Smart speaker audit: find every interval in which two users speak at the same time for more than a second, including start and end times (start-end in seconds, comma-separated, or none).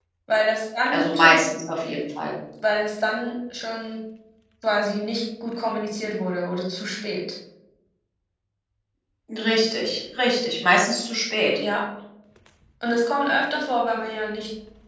none